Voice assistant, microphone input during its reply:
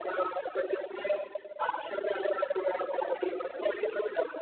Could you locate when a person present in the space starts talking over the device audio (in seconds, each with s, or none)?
none